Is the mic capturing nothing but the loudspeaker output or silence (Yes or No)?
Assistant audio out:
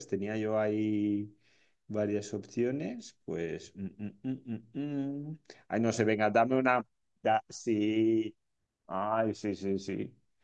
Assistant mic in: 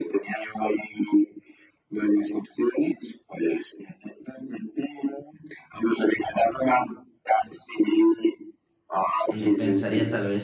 No